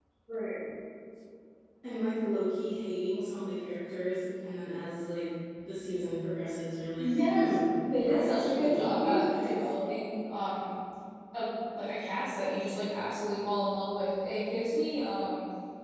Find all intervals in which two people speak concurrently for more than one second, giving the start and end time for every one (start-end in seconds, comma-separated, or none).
7.0-9.7